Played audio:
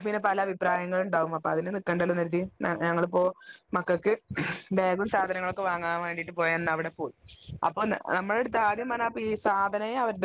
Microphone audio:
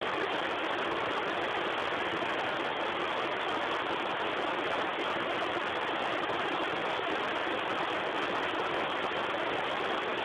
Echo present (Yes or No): No